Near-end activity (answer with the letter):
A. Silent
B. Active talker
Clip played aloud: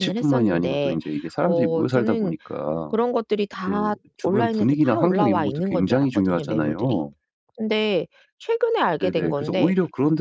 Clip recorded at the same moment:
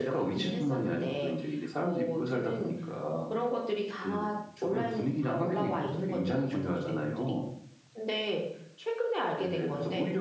A